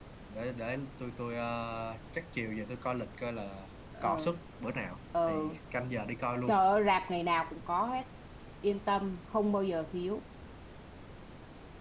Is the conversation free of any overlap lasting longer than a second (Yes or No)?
Yes